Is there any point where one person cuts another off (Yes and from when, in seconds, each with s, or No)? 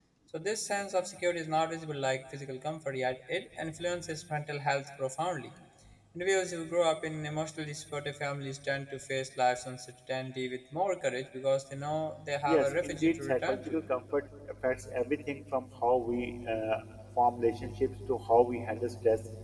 Yes, from 12.4 s